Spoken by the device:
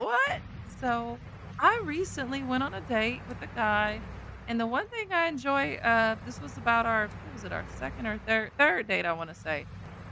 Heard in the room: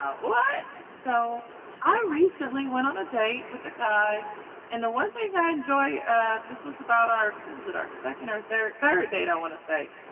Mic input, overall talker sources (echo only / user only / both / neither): echo only